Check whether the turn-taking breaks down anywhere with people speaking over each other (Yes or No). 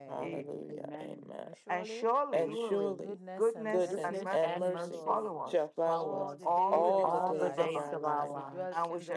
Yes